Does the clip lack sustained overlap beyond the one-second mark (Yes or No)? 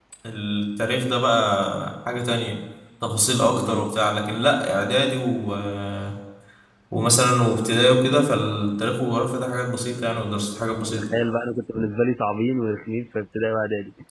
Yes